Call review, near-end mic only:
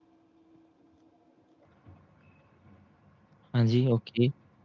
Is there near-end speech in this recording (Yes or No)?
Yes